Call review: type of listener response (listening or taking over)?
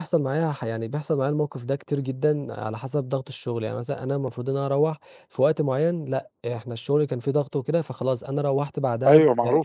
taking over